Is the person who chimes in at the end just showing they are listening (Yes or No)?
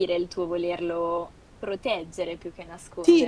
No